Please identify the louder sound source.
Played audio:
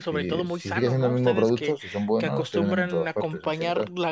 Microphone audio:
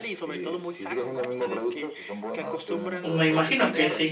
user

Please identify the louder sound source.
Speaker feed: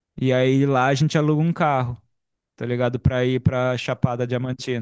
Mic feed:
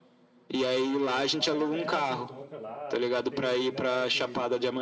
echo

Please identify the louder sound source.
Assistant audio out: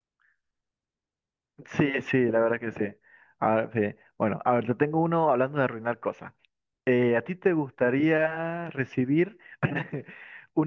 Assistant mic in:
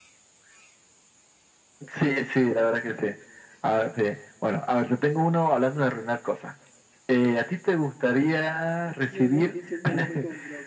echo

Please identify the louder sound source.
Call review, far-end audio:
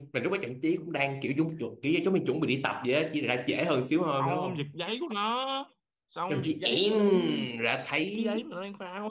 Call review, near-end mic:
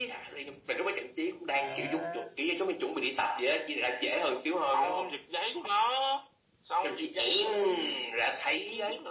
echo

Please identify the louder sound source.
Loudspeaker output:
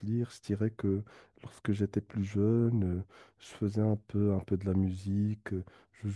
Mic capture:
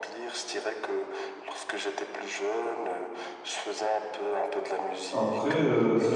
user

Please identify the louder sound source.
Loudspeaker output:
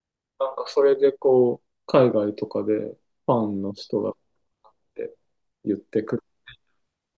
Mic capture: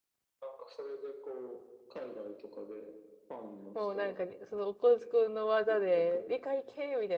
user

